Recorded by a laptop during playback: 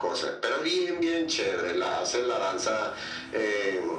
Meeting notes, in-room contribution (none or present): none